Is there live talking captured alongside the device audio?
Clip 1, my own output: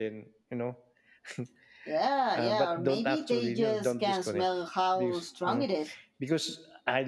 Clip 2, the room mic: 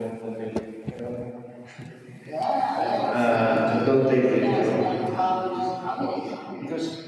Yes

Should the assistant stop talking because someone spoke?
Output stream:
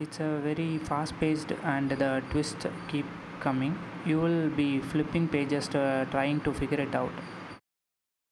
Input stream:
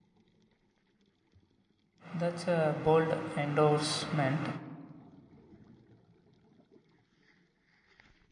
Yes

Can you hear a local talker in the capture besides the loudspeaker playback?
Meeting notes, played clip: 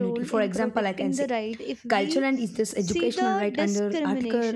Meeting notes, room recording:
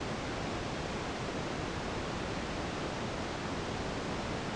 No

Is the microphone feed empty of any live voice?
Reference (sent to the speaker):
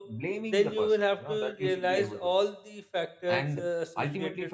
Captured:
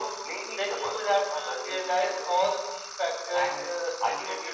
Yes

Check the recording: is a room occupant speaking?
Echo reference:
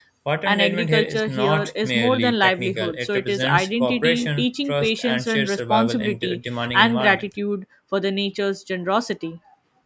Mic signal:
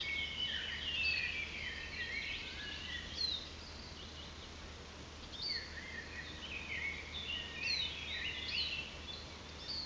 No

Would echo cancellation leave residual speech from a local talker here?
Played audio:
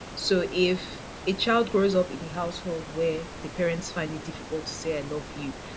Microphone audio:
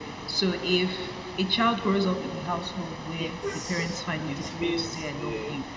Yes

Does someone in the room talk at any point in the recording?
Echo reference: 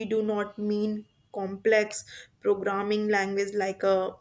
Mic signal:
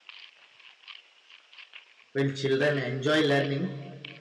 Yes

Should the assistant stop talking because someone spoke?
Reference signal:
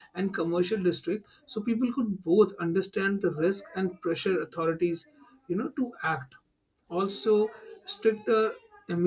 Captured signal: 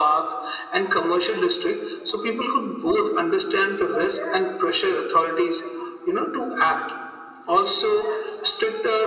No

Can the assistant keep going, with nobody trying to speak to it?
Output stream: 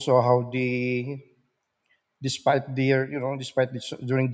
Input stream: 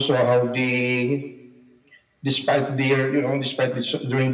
Yes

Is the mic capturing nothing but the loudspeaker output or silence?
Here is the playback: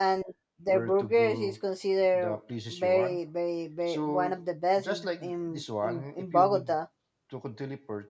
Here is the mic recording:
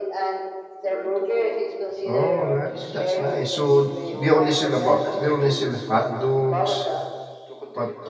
No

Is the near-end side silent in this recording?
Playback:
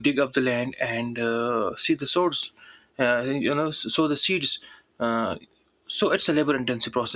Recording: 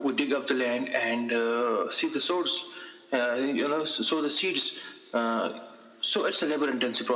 Yes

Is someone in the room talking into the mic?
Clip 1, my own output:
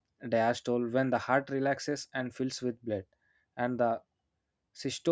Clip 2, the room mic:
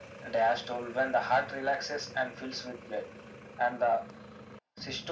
No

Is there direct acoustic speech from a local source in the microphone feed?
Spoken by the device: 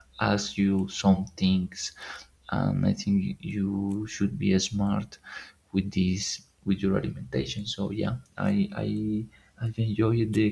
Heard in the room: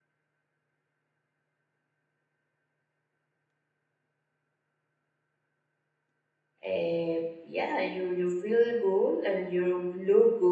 Yes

